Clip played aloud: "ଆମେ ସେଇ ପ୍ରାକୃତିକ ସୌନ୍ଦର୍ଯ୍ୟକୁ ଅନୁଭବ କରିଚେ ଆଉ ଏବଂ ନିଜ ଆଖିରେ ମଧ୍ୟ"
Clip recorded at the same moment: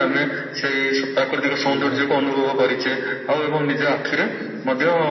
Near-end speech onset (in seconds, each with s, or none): 1.7 s